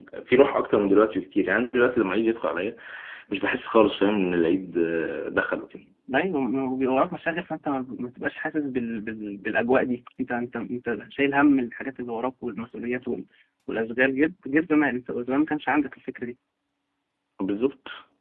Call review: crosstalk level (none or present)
none